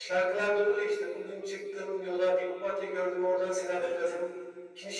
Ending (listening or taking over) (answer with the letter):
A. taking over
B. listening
B